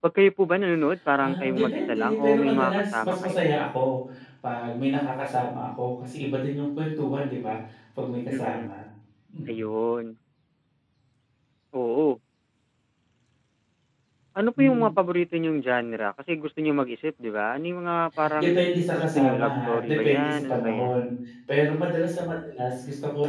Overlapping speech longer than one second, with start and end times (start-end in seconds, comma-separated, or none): 1.2-3.4, 19.0-20.9